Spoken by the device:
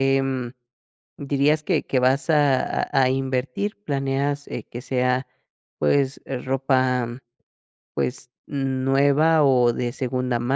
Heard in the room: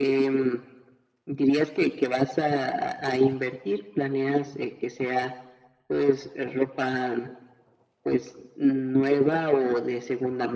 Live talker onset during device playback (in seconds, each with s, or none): none